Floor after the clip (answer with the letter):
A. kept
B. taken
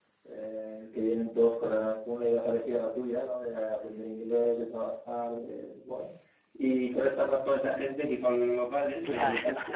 A